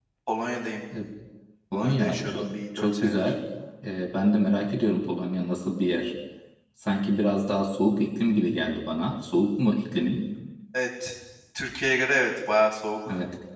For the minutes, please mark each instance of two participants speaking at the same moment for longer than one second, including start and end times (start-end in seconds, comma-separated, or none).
1.7-3.3